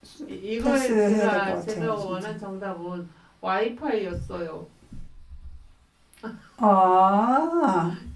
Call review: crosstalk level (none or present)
present